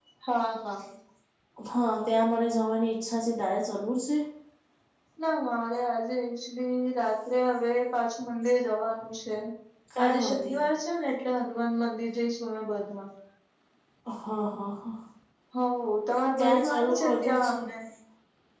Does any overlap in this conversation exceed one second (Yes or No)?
Yes